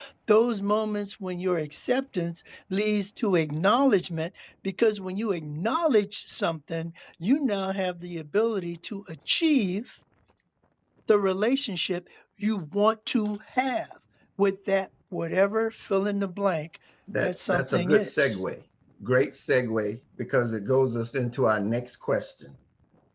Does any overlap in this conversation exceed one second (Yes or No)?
Yes